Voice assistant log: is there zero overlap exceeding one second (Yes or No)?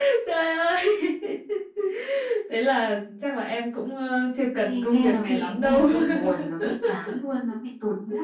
No